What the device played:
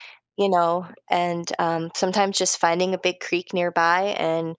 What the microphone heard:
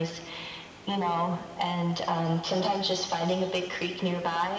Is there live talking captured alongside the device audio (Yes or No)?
No